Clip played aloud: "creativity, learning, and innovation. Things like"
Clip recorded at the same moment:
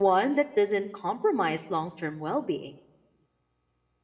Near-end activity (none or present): present